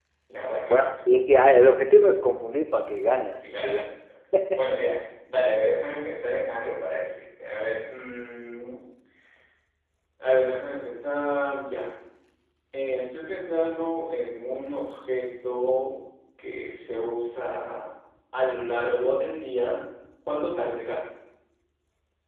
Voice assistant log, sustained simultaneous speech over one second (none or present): none